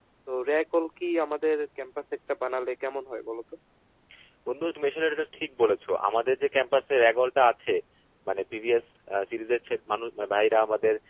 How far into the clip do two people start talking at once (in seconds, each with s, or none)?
none